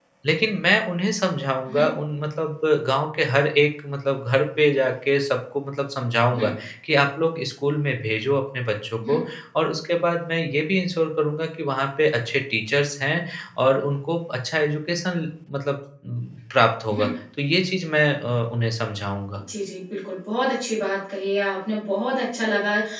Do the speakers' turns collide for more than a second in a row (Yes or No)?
No